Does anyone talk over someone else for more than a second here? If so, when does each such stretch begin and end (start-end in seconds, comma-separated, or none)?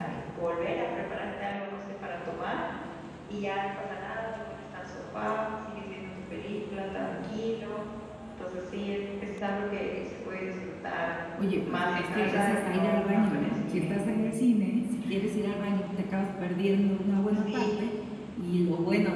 11.6-13.9